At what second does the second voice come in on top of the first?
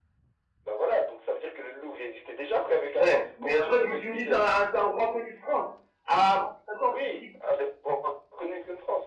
3.0 s

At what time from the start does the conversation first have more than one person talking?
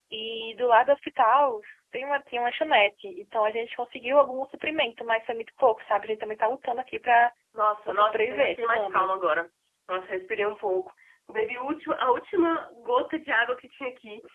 7.9 s

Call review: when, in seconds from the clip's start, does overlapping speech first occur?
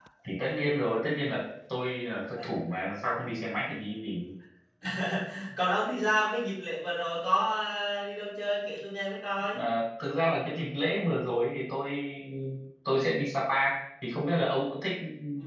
none

